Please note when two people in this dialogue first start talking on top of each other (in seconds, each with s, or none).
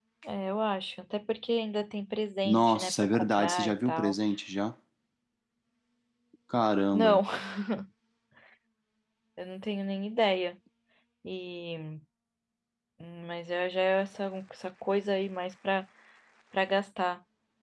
2.5 s